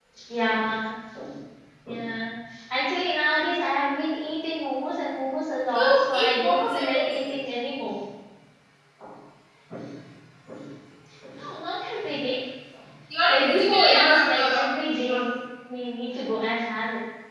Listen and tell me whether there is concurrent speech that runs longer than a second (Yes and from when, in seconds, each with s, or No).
Yes, from 5.7 s